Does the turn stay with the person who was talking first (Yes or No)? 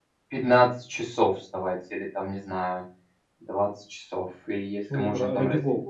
No